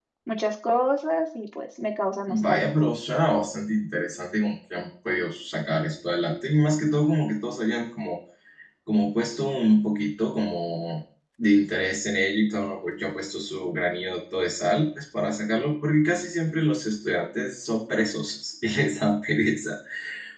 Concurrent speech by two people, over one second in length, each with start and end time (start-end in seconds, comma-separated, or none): none